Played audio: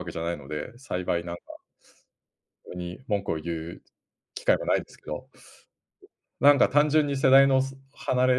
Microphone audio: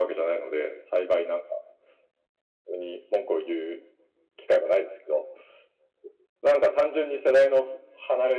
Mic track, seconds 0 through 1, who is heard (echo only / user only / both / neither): echo only